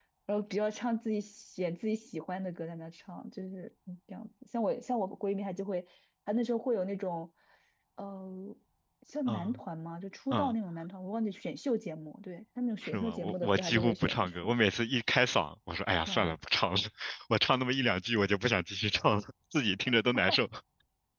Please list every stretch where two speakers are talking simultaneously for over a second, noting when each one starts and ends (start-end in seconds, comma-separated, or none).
12.8-14.5